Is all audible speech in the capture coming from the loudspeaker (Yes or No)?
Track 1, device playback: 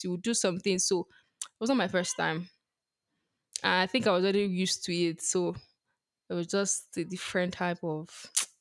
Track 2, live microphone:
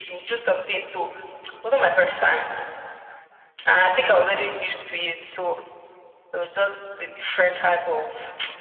Yes